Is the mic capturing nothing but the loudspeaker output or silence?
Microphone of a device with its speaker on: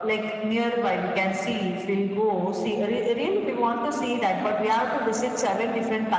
Yes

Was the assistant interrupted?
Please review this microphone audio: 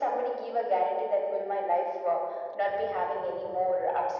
No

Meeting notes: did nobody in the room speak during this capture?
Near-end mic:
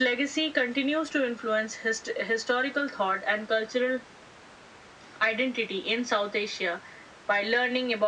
Yes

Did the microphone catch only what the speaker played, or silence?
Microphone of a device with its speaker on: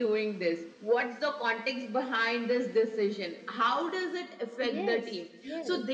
No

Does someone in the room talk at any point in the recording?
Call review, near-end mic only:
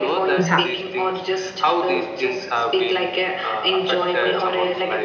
Yes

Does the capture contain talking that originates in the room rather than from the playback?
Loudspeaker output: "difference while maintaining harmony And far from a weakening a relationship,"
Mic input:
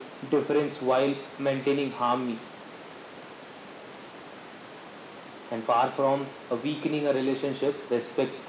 No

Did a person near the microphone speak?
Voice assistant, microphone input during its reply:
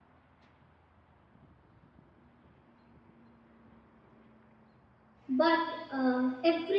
Yes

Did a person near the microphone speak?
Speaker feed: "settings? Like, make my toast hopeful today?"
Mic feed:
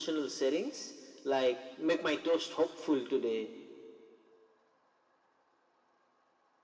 No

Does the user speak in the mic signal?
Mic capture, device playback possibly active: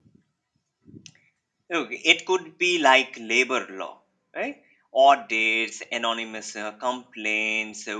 Yes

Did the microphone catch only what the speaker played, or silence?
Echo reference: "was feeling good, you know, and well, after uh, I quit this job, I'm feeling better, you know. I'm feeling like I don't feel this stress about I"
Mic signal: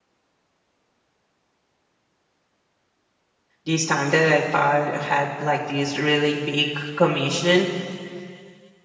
No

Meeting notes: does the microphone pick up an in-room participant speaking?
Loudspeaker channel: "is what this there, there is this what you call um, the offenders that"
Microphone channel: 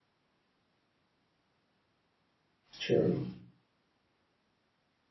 Yes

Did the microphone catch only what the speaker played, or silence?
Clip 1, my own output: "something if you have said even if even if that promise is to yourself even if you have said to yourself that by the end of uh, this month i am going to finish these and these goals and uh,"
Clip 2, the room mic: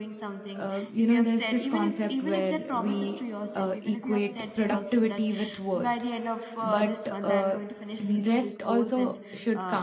No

